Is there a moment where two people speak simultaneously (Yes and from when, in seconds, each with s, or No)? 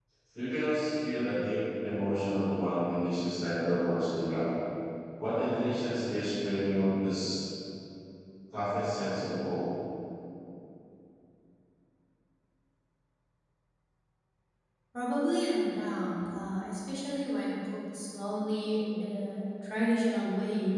No